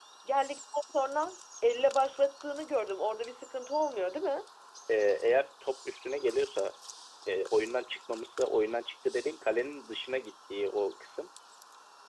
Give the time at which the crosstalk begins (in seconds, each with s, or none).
none